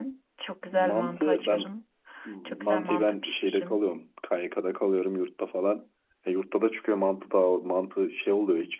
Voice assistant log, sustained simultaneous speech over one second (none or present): present